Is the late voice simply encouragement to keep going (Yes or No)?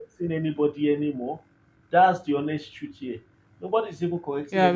No